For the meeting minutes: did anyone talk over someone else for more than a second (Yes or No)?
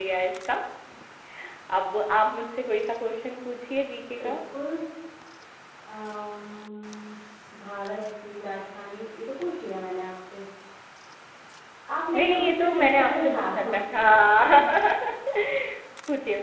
Yes